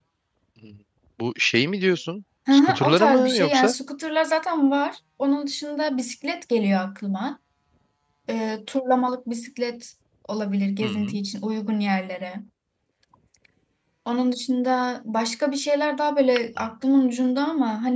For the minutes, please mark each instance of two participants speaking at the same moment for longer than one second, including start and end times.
2.5-3.8

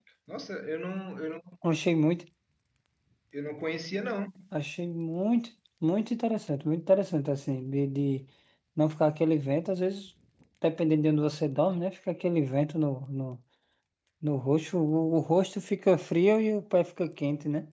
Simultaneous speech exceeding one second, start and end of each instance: none

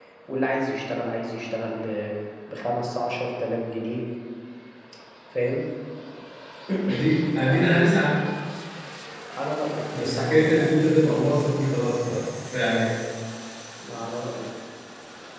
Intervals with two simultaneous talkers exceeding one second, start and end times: 9.9-11.2

